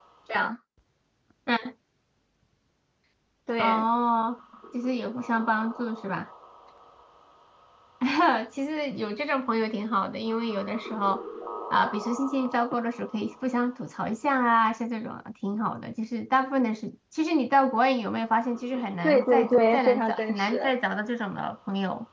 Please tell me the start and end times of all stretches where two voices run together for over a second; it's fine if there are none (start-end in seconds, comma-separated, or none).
19.0-20.7